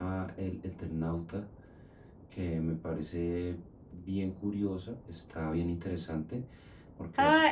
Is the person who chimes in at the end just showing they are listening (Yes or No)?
No